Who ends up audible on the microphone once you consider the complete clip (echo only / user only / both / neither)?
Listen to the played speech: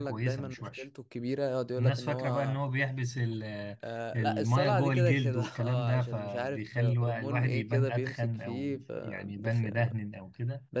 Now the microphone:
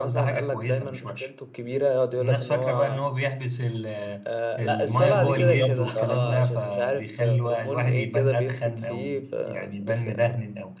both